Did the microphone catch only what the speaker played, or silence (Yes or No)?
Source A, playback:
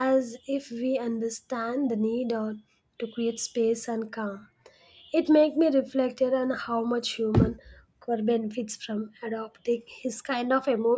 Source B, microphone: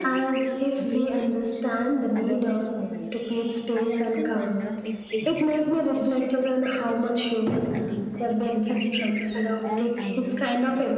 No